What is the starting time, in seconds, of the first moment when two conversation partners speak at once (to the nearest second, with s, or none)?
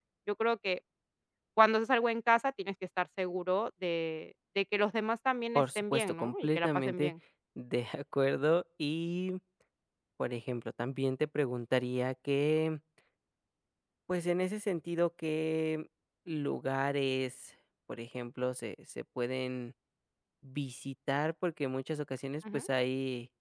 6 s